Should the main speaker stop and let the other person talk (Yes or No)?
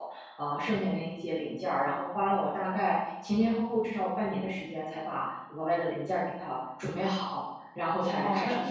Yes